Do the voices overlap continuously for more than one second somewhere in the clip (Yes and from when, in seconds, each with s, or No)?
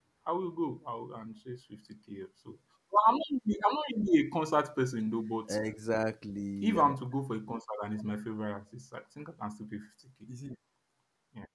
No